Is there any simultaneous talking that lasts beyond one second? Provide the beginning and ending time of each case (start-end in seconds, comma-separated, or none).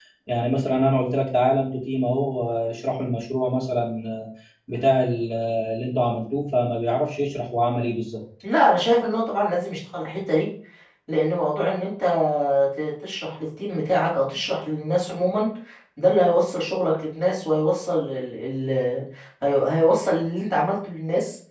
none